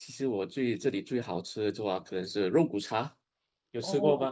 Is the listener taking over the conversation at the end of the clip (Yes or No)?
Yes